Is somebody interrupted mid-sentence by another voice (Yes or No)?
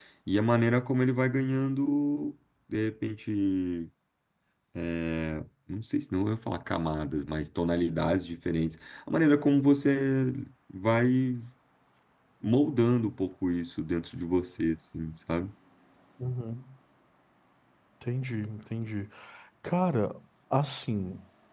No